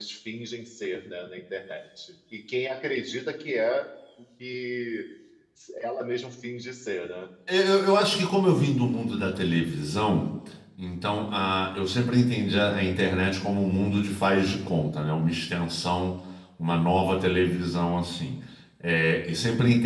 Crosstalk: none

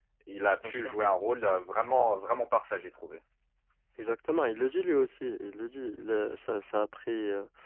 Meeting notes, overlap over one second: none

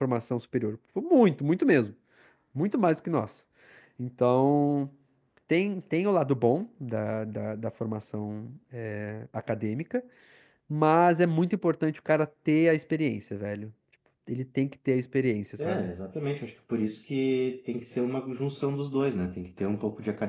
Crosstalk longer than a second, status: none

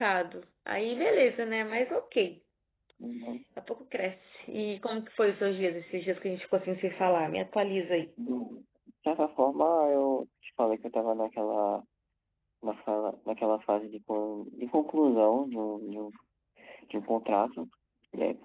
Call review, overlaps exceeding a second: none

